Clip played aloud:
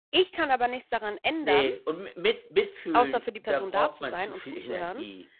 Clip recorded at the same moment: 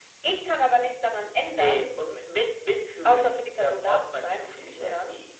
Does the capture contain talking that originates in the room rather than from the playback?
No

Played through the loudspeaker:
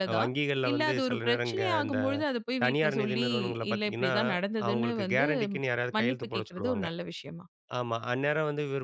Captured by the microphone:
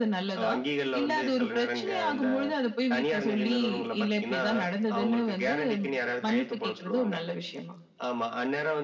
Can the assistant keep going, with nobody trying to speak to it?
Yes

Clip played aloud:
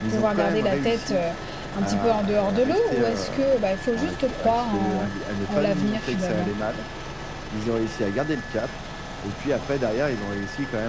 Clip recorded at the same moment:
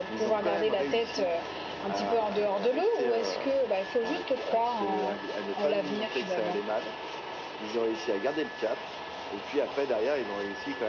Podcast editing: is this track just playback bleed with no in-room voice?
Yes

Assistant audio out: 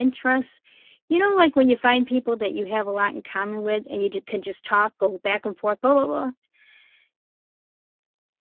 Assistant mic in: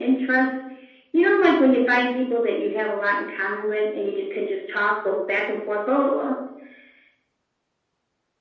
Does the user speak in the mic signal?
No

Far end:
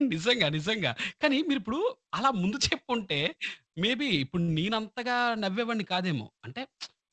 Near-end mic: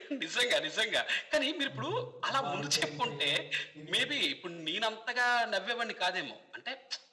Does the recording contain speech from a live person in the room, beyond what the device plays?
Yes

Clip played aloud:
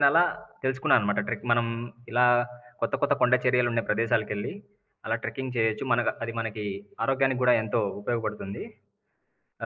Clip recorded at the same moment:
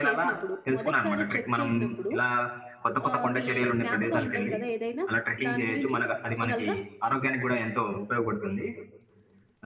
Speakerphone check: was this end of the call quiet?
No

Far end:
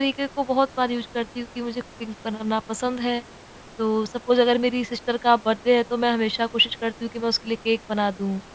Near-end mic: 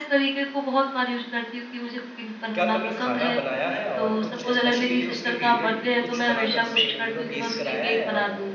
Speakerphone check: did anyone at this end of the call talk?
Yes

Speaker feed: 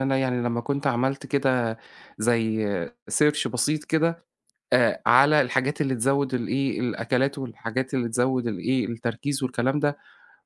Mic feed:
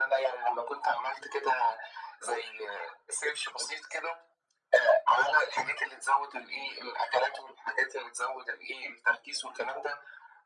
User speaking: No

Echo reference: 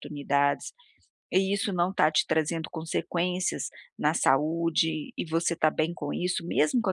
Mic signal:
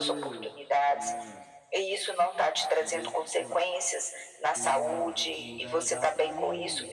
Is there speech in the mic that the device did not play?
Yes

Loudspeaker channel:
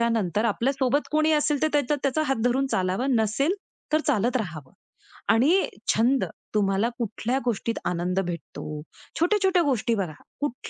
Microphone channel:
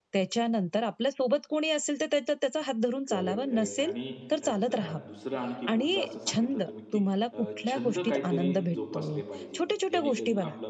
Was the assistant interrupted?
Yes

